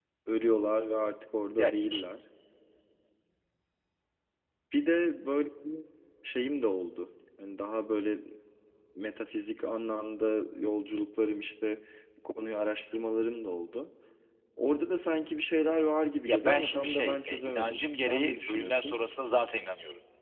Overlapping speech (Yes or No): Yes